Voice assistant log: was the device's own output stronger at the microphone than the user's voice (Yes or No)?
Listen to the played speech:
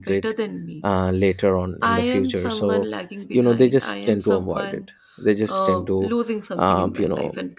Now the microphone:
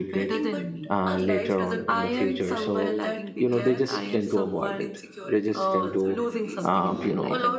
Yes